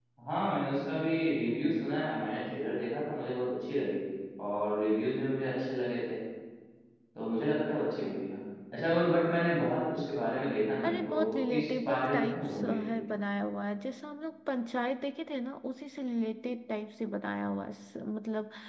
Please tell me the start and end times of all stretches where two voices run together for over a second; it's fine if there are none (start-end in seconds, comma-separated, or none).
10.8-12.8